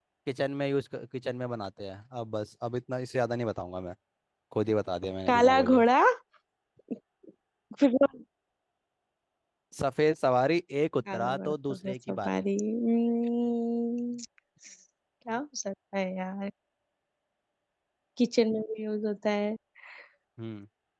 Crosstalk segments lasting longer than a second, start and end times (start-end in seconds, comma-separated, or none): 11.1-12.4